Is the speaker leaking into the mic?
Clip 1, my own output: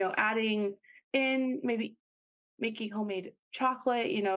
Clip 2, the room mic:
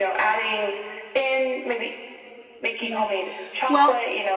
Yes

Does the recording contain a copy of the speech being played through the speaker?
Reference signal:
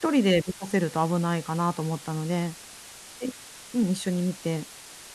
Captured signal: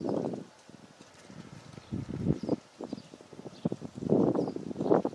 No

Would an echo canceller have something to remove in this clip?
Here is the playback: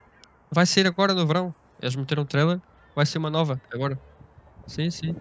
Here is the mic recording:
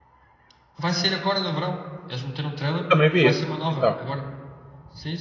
Yes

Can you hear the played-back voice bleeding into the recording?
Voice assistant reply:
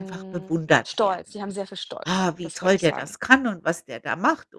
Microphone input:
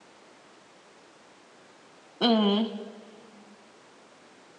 No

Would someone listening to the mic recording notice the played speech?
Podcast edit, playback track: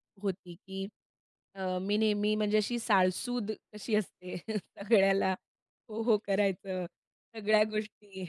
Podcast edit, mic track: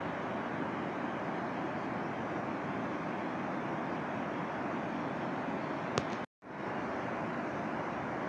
No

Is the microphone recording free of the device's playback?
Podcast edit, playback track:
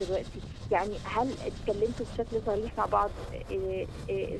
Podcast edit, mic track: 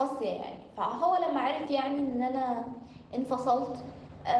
Yes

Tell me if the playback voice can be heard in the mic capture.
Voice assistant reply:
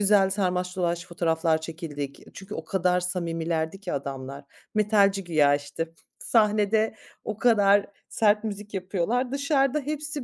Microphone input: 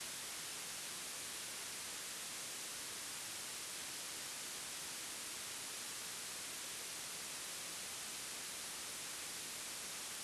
No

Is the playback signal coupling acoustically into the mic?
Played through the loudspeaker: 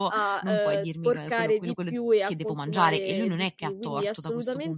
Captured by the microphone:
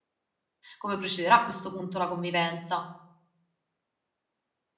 No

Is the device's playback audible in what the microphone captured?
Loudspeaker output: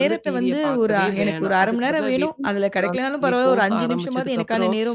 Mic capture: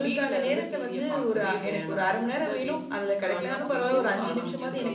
Yes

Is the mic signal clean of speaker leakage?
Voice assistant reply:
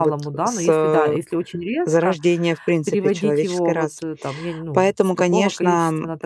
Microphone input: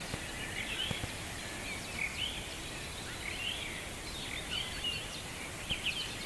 Yes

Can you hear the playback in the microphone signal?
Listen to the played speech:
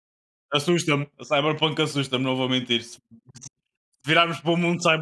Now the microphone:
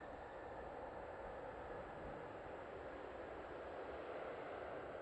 No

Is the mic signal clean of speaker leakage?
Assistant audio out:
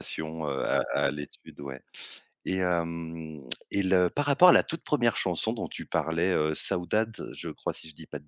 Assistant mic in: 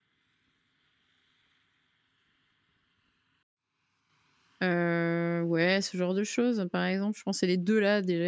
Yes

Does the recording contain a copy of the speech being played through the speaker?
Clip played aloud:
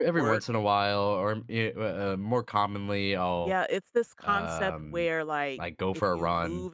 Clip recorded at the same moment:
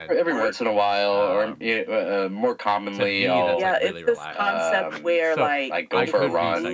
Yes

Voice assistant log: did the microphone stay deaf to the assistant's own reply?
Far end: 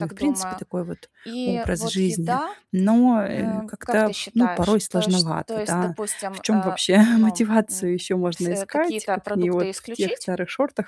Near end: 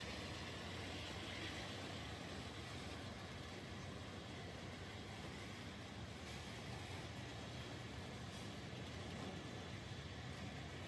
Yes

